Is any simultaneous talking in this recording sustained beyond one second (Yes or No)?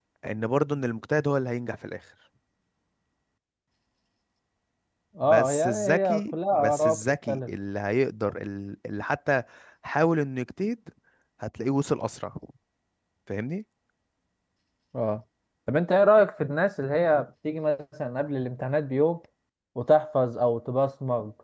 Yes